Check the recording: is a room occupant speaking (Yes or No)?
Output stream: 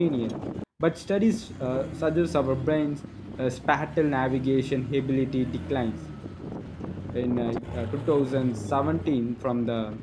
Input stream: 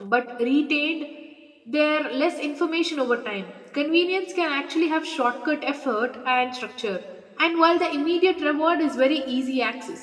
Yes